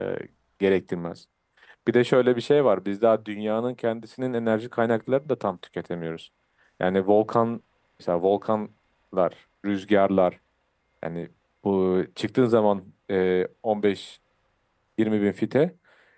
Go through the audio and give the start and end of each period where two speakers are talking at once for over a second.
none

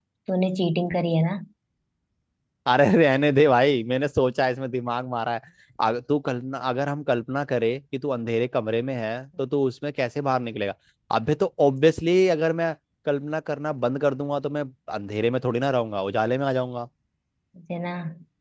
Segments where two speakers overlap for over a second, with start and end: none

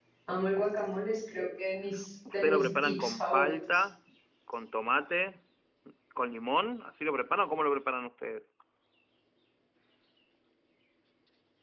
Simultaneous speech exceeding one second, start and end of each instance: 2.3-3.8

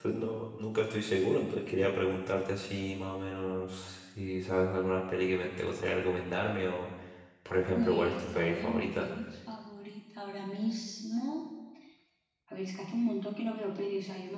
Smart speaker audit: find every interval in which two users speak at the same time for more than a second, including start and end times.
7.7-9.1

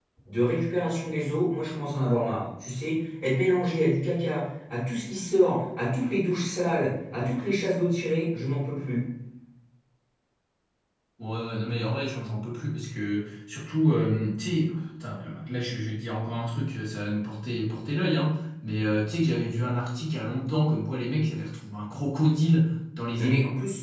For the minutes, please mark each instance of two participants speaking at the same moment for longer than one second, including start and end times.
none

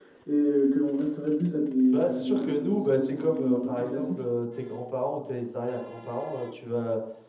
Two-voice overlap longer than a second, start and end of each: 1.9-4.3

